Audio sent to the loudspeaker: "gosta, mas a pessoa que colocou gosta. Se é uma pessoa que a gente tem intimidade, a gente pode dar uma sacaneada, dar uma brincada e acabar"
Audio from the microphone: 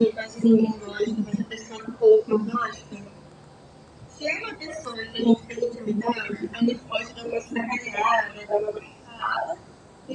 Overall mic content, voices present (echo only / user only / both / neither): echo only